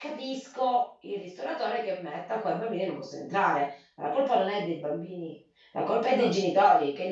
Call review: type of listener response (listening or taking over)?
listening